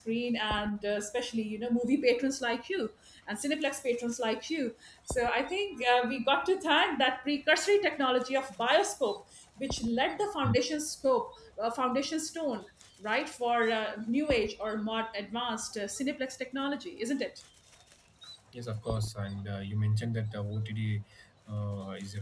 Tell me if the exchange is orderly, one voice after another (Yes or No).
Yes